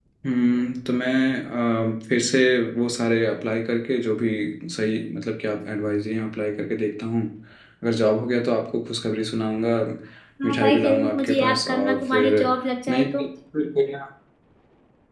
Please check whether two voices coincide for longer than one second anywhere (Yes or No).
Yes